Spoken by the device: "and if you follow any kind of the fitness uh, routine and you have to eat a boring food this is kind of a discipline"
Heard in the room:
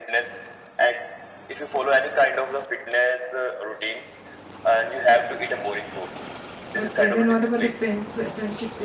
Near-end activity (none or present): present